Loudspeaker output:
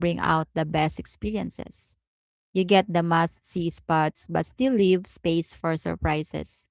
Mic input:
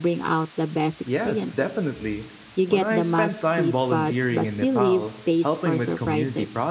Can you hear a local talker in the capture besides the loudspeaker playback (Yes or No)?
Yes